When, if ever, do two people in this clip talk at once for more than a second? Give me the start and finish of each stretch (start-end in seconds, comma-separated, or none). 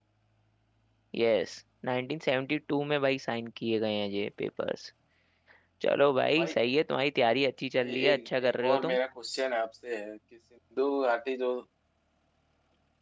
7.8-9.0